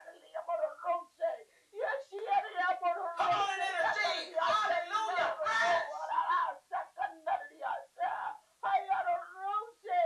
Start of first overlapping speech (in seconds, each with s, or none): 3.2 s